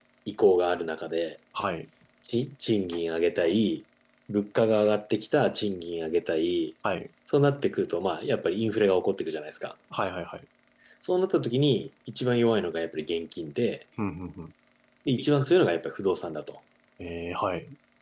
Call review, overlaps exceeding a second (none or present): none